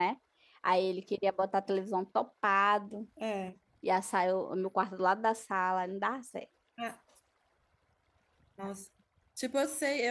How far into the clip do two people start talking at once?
none

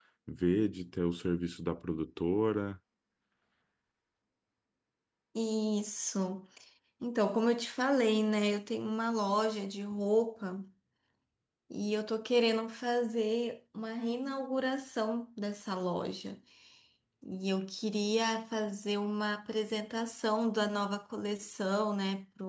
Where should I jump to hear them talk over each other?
none

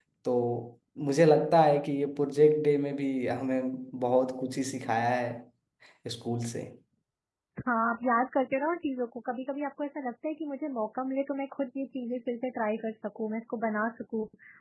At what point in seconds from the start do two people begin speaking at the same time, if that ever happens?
none

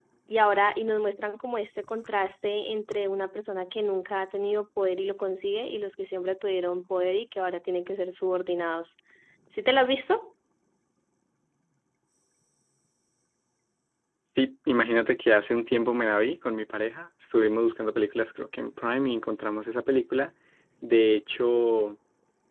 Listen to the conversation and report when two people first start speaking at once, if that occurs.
none

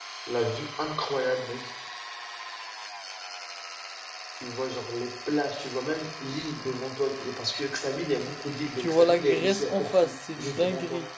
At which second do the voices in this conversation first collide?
8.8 s

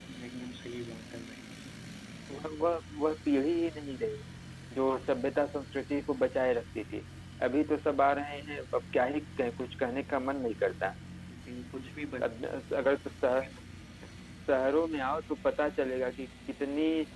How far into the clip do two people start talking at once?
none

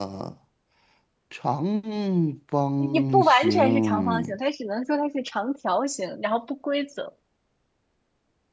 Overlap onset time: 2.9 s

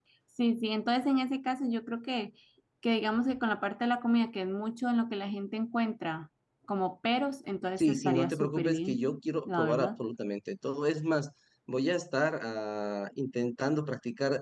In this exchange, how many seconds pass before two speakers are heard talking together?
7.8 s

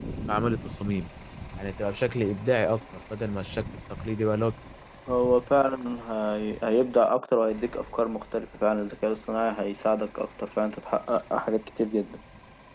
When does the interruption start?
none

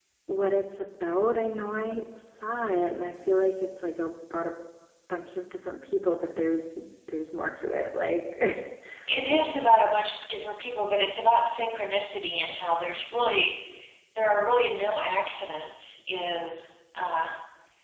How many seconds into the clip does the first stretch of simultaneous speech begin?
none

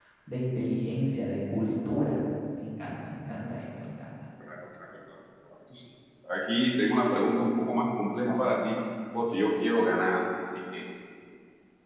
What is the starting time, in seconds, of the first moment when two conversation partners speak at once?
none

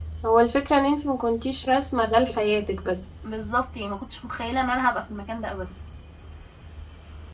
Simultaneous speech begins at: none

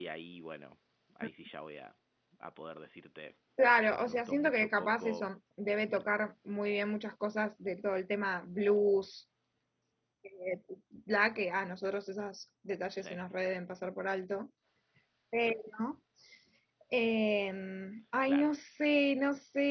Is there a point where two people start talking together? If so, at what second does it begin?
4.0 s

